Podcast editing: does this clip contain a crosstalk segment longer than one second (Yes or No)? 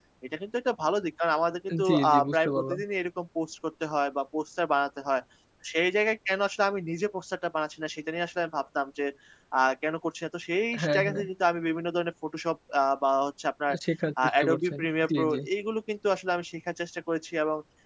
Yes